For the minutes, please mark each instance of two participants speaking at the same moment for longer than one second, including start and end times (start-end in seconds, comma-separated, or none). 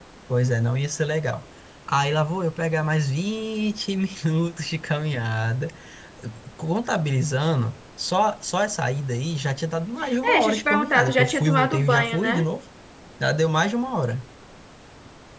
10.2-12.4